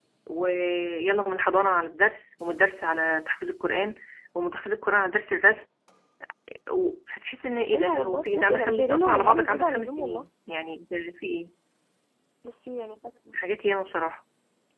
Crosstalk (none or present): present